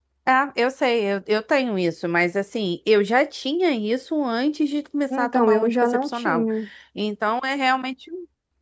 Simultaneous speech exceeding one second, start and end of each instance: 5.1-6.4

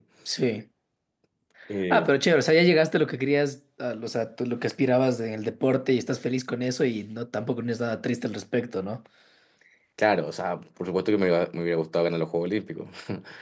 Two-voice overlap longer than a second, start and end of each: none

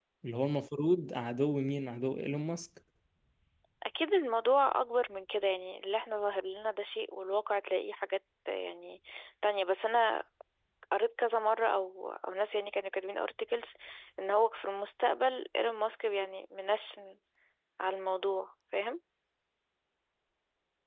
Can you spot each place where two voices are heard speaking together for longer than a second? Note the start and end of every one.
none

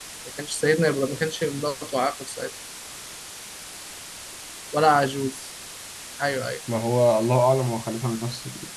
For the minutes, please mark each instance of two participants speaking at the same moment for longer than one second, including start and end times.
none

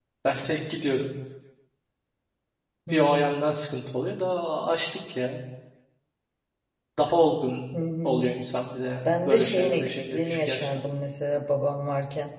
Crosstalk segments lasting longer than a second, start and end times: 9.1-10.8

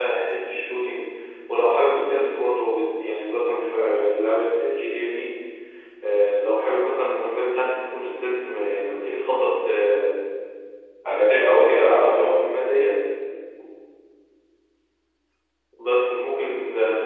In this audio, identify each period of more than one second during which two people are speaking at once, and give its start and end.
11.1-12.4

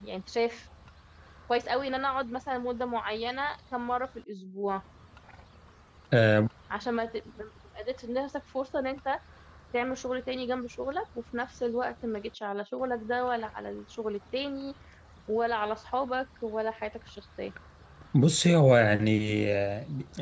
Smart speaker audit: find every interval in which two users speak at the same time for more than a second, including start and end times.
none

